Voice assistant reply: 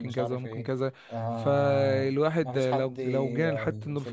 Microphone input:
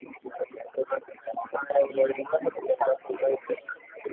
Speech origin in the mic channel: echo only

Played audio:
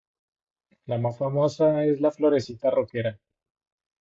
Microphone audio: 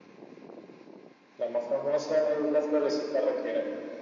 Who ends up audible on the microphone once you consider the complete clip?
echo only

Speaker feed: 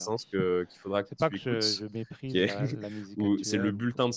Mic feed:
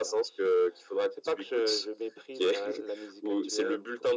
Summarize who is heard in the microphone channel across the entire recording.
echo only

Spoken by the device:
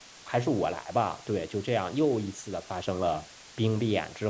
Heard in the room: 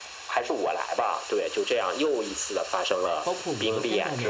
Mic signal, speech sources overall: both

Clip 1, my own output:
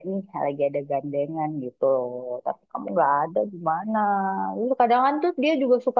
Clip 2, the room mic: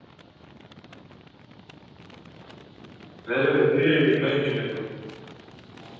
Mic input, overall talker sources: user only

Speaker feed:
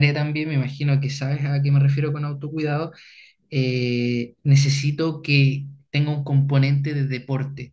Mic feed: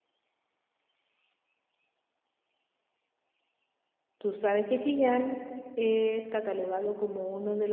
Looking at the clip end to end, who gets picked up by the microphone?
user only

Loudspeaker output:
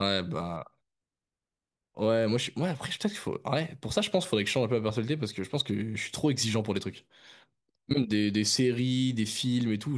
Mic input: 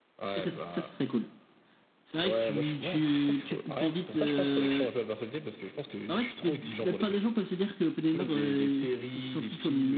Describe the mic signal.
both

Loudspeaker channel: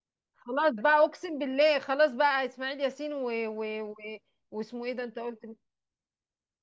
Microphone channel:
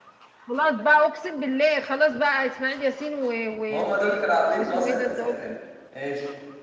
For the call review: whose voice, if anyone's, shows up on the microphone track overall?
both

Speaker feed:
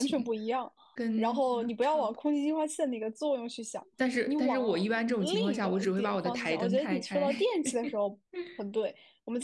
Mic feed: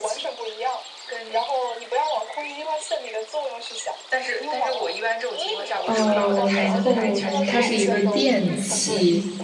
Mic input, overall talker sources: both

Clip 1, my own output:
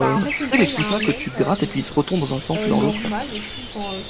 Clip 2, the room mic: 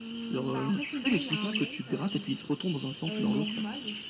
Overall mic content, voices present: echo only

